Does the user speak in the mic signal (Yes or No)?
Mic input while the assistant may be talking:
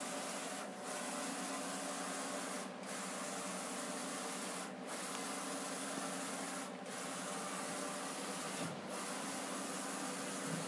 No